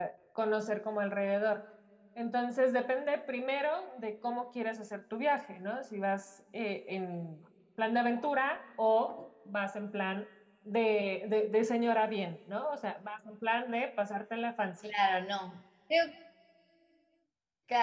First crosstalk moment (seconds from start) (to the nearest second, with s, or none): none